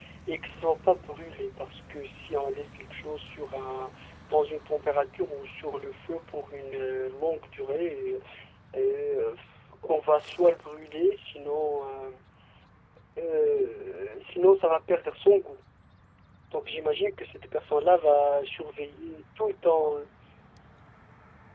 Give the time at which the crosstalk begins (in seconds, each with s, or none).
none